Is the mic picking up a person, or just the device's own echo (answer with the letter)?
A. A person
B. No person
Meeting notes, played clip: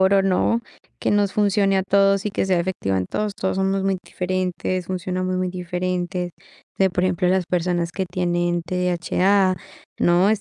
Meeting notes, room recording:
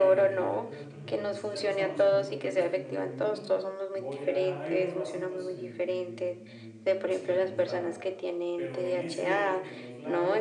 A